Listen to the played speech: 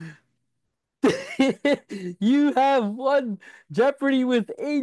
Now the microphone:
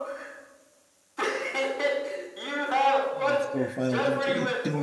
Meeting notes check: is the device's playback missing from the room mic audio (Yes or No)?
No